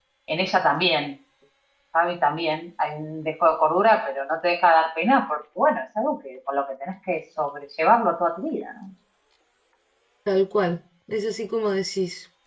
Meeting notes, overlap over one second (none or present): none